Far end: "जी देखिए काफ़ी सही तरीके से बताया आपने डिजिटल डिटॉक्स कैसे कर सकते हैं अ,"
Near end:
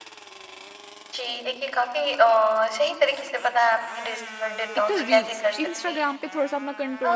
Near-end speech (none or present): present